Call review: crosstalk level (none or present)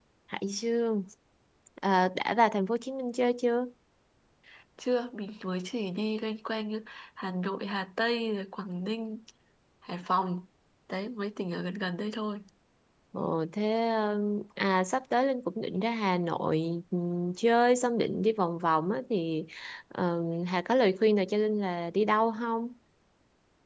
none